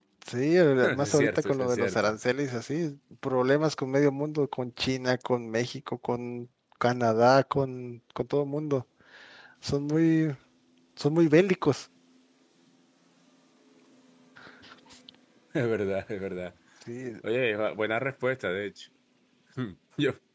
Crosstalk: present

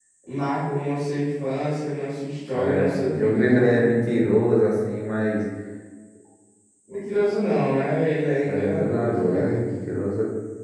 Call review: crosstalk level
present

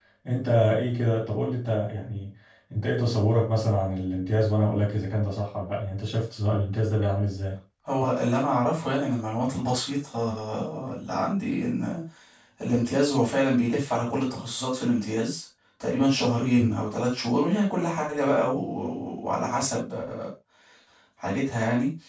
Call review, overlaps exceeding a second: none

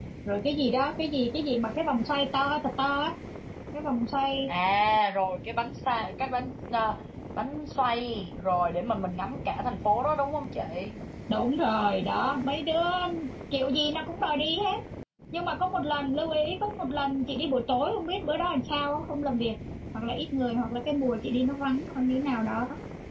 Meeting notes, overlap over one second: none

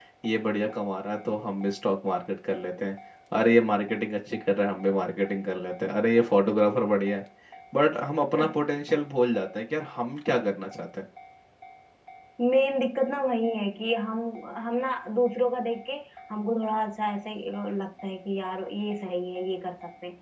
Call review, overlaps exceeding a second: none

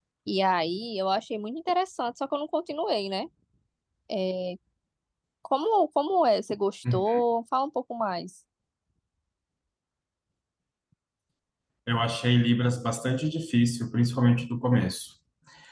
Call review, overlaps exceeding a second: none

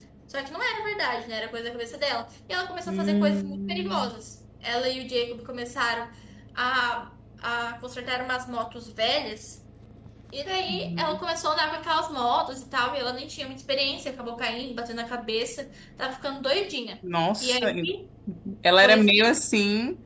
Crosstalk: present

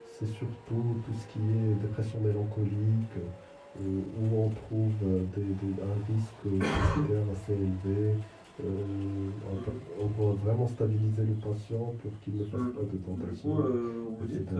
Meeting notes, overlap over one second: present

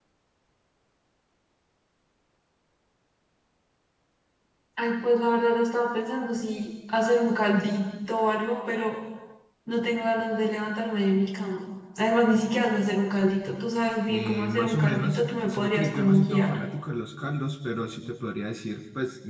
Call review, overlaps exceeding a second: present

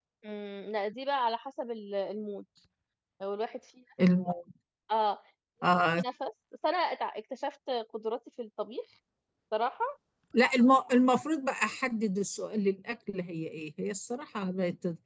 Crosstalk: none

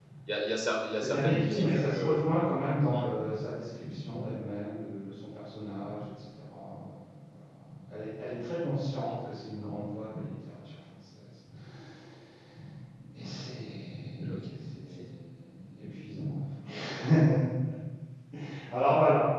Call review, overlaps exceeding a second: present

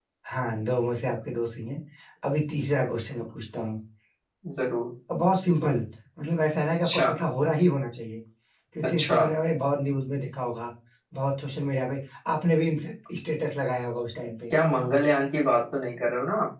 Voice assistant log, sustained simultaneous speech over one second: none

